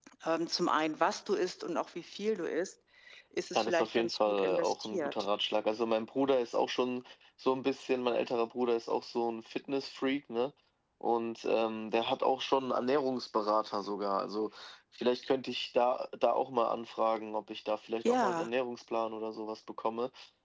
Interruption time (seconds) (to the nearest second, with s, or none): 4 s